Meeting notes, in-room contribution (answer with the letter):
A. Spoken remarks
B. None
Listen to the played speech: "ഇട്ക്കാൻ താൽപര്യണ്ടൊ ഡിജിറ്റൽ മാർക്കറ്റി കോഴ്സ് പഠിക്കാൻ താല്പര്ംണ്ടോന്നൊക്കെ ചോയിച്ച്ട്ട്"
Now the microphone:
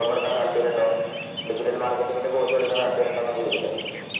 B